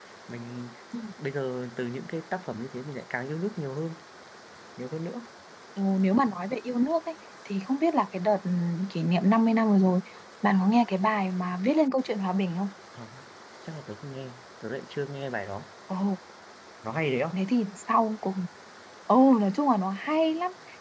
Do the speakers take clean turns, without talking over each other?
Yes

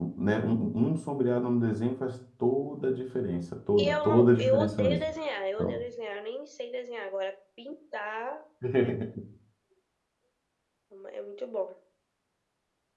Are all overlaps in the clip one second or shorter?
No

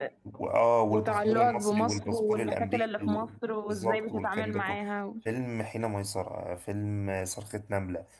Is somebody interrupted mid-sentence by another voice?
Yes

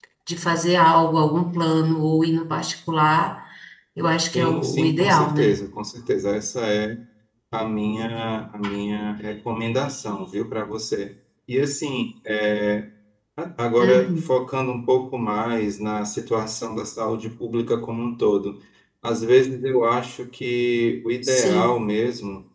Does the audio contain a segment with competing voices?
Yes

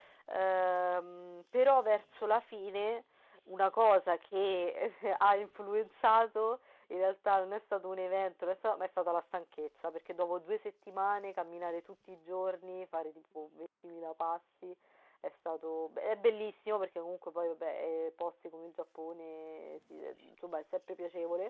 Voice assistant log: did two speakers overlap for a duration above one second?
No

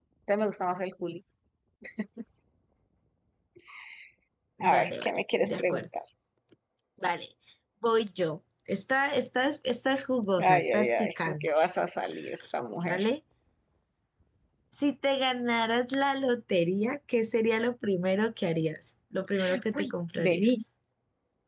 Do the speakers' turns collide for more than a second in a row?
Yes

